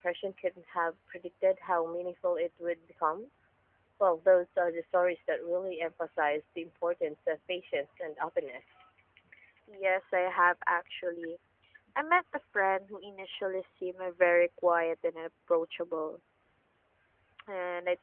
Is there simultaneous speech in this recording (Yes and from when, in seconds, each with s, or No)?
No